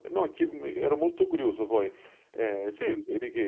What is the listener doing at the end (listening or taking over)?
listening